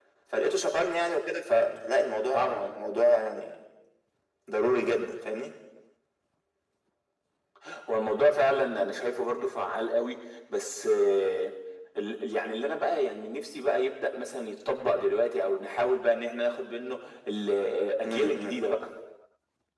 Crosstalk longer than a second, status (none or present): none